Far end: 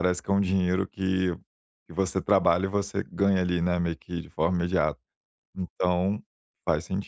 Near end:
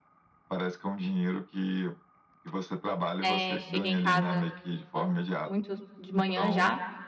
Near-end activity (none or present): present